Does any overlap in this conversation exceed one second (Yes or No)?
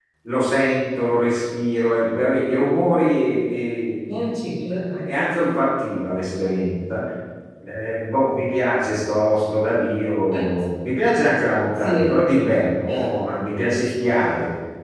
No